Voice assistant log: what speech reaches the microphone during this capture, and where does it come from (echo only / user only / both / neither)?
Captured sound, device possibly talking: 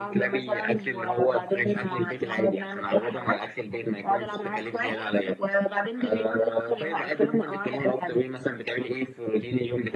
echo only